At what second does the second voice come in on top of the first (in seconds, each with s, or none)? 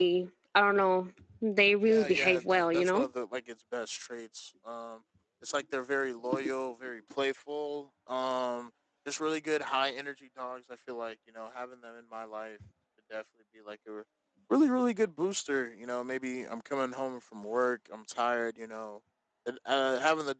1.9 s